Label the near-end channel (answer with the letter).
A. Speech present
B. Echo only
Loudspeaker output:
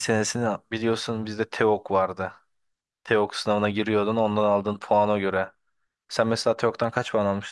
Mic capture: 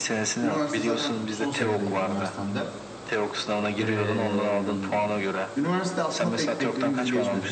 A